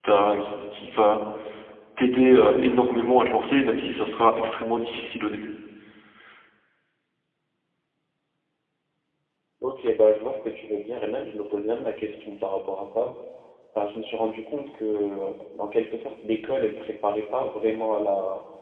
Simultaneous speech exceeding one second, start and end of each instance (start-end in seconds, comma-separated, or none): none